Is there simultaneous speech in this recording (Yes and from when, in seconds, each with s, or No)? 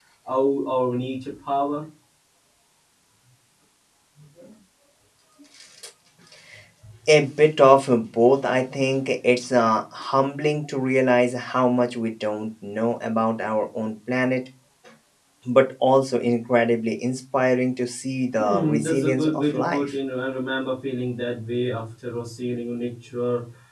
Yes, from 18.4 s